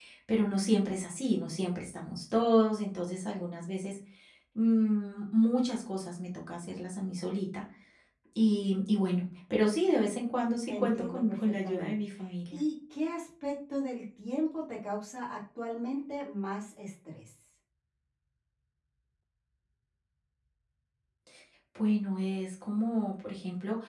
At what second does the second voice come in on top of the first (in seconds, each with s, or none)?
10.7 s